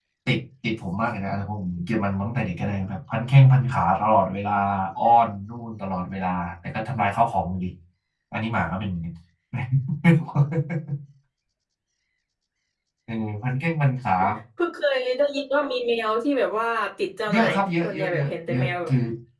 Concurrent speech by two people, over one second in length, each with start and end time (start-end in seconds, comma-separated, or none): 17.3-18.7